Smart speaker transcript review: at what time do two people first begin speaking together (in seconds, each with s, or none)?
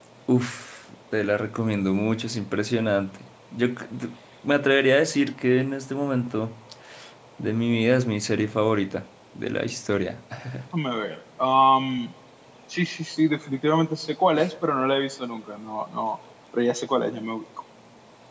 none